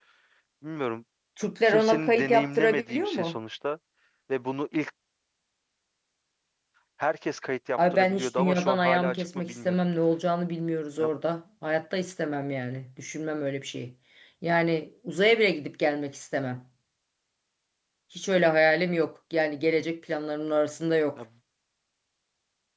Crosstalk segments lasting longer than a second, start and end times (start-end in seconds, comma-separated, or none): 1.6-3.4, 7.8-9.8